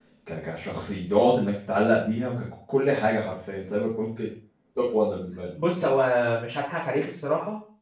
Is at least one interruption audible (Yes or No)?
No